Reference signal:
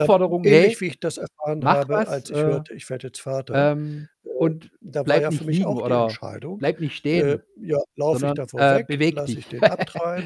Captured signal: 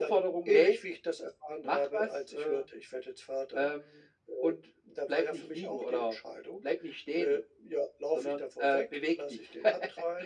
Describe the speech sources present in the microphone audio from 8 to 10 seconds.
echo only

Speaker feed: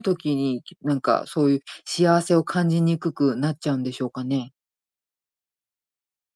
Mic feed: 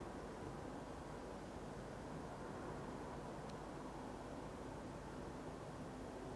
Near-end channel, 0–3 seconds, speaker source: neither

